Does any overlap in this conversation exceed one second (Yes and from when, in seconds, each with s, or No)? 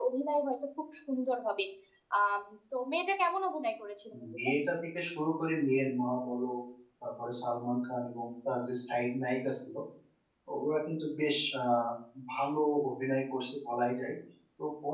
No